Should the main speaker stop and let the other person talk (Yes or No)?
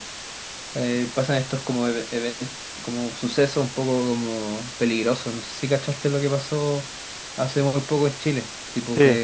No